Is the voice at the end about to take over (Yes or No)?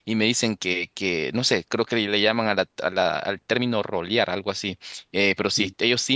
No